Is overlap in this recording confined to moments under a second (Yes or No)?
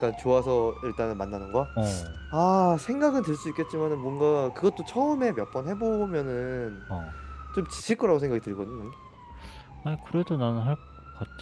Yes